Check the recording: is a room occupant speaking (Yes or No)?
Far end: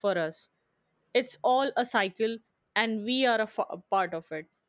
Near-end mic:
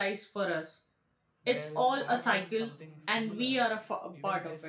Yes